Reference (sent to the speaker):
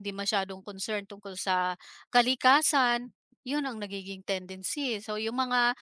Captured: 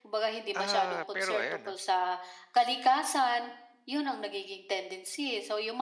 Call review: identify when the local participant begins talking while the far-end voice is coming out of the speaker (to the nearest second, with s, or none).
1 s